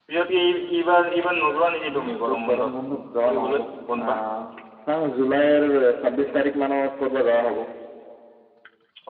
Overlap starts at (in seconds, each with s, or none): 1.9 s